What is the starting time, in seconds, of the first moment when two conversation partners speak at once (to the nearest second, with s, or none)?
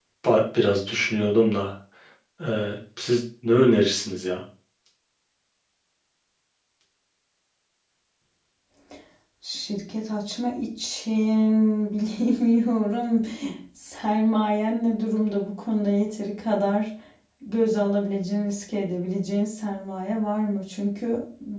none